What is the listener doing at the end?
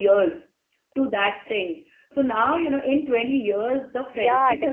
taking over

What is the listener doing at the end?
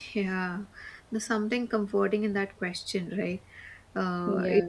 listening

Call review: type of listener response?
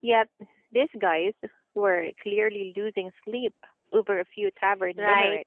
taking over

